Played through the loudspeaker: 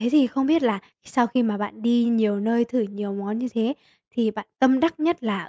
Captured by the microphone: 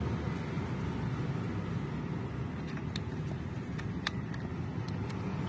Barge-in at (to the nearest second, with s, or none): none